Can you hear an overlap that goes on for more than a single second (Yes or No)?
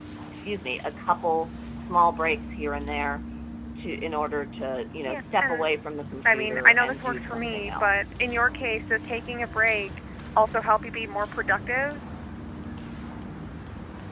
Yes